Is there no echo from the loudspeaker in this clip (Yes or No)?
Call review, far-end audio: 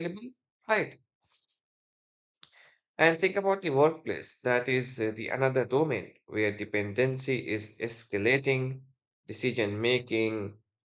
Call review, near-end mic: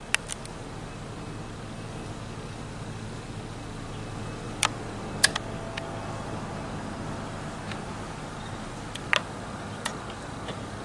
Yes